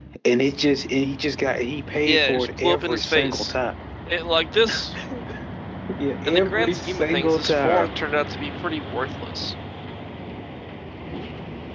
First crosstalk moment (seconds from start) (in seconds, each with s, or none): 2.0 s